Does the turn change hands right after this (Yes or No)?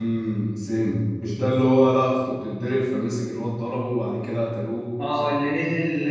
Yes